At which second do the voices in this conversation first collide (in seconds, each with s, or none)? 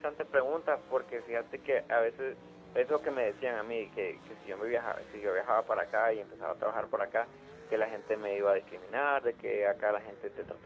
none